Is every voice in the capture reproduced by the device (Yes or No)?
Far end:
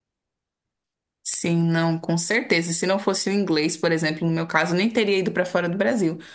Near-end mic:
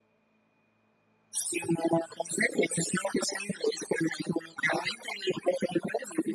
Yes